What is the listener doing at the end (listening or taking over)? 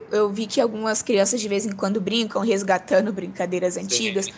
listening